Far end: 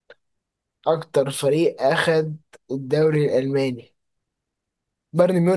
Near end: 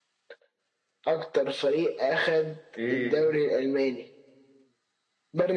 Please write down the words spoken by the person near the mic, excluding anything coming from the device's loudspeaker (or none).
ايه